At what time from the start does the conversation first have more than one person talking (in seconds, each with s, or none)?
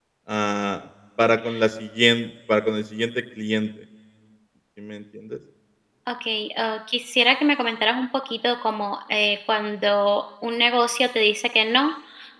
none